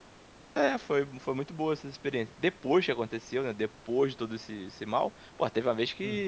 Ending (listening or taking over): listening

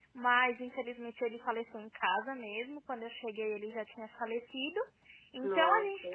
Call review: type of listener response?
listening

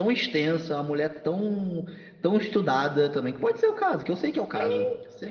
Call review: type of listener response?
taking over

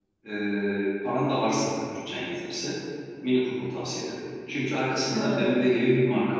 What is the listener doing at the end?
listening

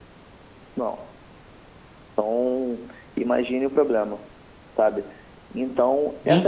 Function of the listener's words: taking over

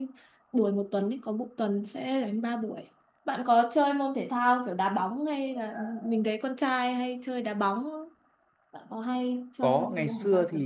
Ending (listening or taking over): taking over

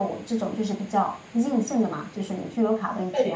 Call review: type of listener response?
listening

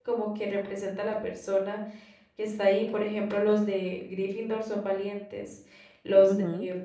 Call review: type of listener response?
listening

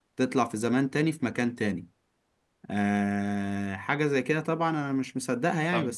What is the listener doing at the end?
taking over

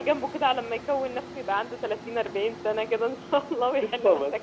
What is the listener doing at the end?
taking over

